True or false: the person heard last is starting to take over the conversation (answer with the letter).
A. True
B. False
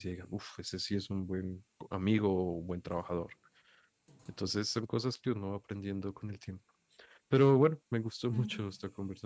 B